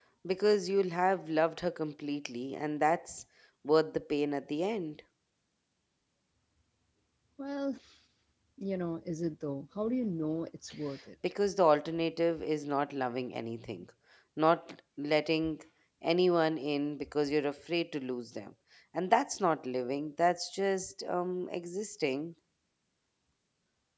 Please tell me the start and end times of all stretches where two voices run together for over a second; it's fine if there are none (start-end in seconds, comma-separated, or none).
none